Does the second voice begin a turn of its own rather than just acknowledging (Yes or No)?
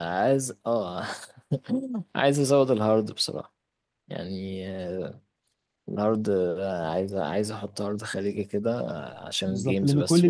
Yes